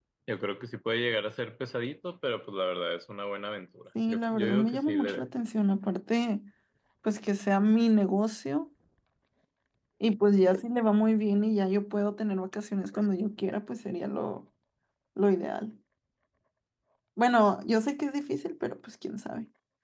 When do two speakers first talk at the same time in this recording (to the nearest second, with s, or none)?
4 s